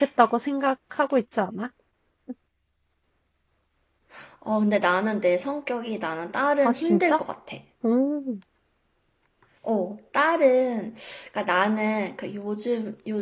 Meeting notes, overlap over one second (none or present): none